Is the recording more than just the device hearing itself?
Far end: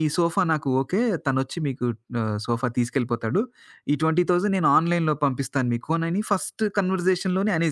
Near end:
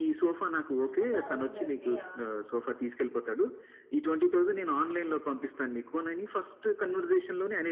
Yes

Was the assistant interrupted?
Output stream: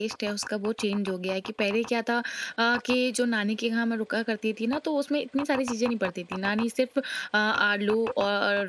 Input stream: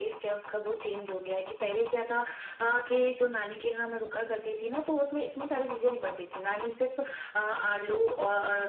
No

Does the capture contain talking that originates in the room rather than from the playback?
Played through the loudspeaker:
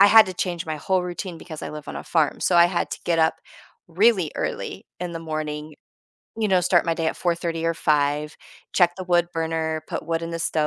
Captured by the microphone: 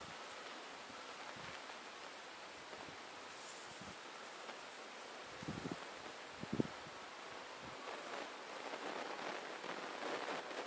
No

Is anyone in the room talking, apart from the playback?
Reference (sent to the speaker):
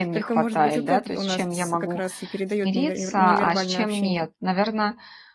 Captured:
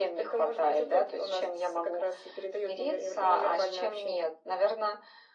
No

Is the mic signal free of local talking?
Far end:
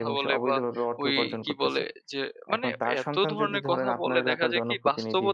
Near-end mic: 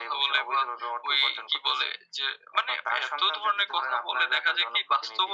Yes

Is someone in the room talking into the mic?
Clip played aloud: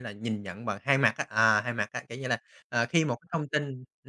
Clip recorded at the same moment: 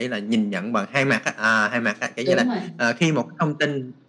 Yes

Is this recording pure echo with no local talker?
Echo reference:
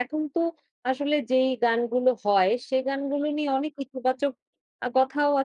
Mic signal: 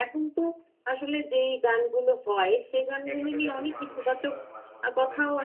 No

